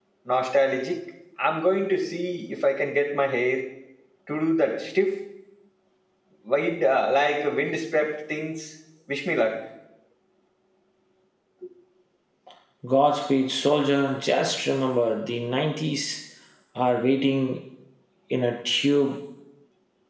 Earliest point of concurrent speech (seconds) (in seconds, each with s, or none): none